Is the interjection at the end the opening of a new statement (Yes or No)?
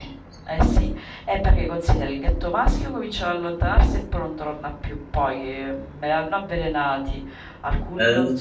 No